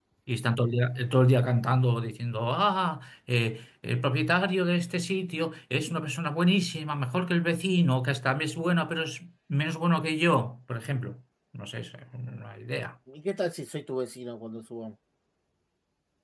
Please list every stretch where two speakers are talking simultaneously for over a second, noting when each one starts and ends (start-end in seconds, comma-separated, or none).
none